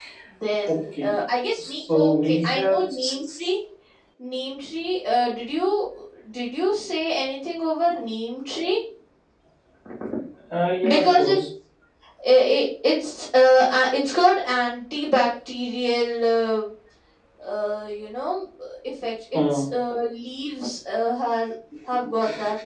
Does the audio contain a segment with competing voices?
Yes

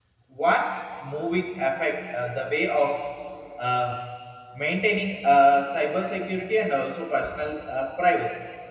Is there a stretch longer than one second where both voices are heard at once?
No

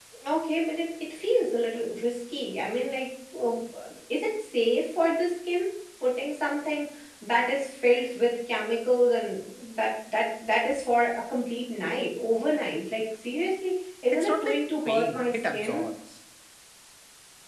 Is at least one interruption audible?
Yes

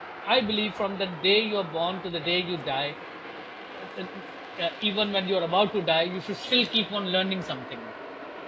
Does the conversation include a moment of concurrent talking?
No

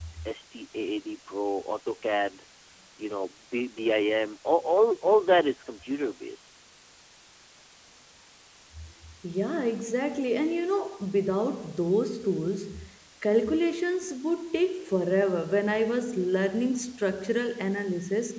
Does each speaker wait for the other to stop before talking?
Yes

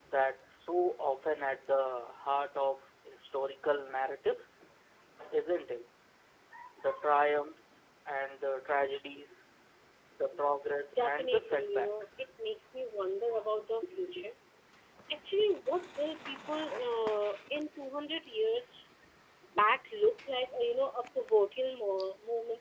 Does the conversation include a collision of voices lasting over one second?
Yes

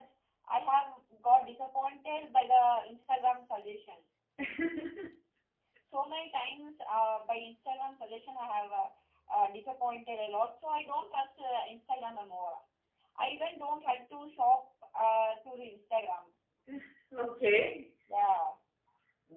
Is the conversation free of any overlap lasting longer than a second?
Yes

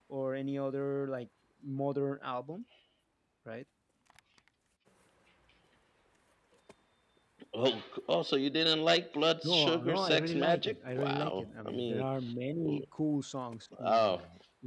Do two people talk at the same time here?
Yes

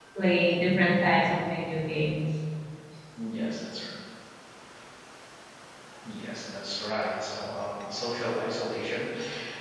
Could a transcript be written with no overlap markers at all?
Yes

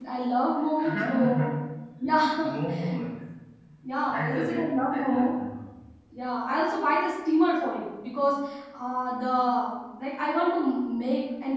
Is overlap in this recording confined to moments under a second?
No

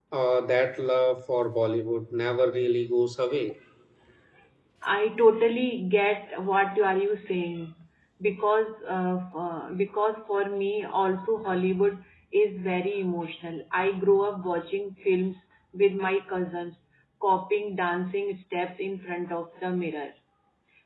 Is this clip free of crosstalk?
Yes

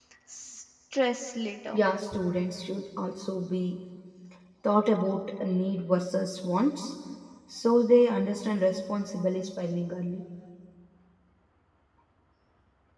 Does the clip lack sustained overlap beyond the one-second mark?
Yes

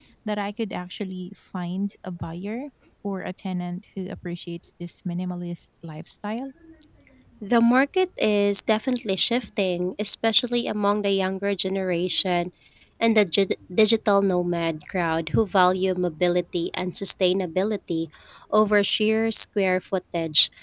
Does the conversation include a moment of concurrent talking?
No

